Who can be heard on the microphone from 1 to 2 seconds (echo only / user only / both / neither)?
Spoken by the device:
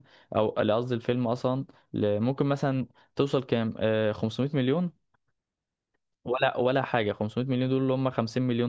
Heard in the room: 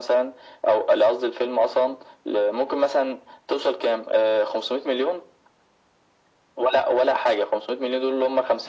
echo only